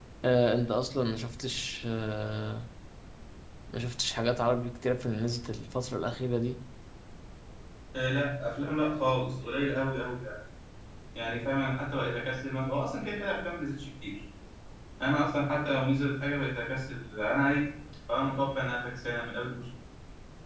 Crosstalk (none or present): none